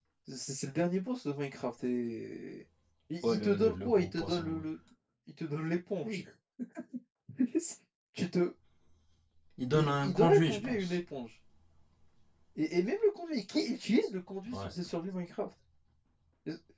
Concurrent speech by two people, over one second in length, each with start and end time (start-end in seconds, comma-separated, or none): 3.2-4.6, 9.7-11.0